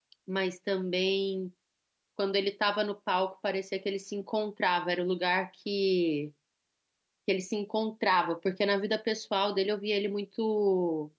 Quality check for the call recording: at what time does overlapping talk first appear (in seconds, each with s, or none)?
none